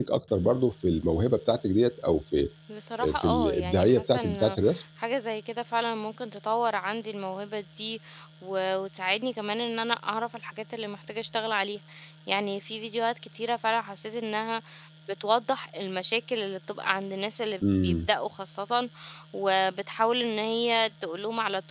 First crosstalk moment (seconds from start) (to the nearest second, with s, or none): 3 s